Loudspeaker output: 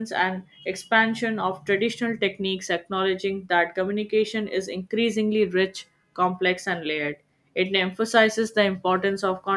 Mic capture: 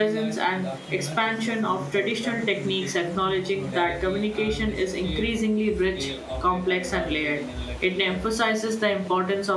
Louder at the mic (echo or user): echo